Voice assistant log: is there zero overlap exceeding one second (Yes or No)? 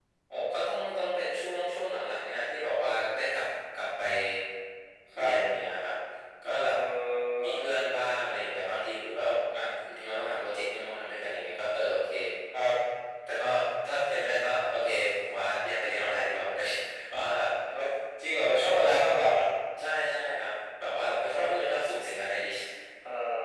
Yes